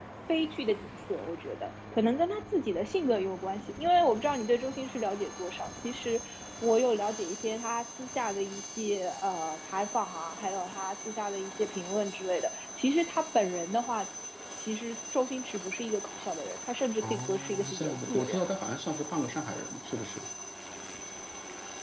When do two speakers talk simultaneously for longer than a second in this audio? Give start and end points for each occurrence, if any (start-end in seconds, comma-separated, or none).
17.0-18.4